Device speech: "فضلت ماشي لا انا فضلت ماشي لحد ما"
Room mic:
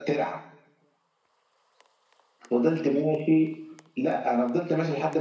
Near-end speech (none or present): none